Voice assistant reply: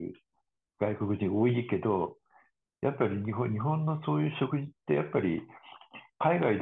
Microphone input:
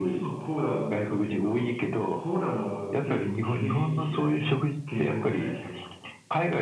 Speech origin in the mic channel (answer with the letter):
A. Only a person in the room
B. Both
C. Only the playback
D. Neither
B